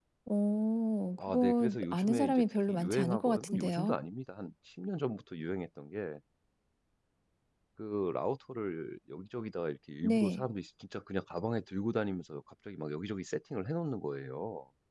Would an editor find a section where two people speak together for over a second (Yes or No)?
Yes